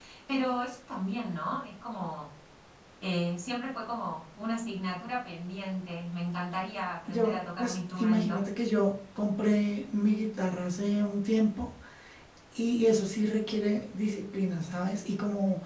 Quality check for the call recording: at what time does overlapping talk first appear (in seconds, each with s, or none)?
7.1 s